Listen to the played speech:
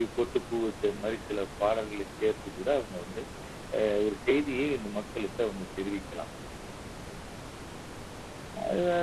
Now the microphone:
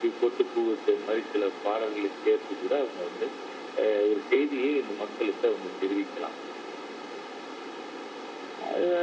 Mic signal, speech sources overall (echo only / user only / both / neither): echo only